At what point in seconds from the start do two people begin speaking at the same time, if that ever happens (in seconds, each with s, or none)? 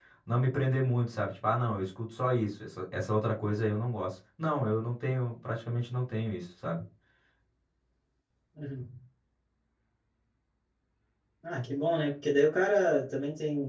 none